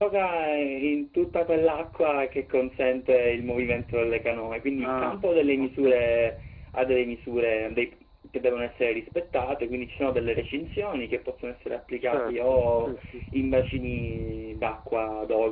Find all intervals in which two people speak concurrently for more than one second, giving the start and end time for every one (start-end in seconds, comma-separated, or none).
4.8-6.0, 12.0-13.2